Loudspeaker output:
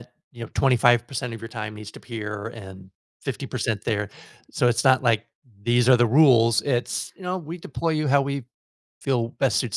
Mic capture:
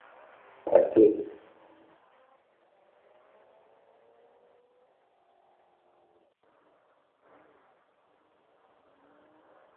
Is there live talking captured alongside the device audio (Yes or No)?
Yes